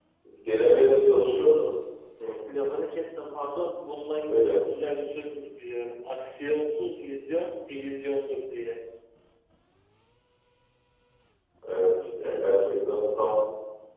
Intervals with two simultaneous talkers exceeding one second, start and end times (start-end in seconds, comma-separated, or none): none